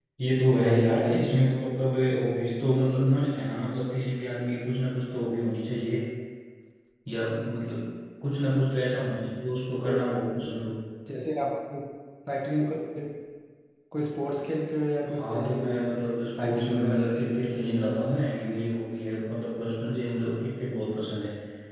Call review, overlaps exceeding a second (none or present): present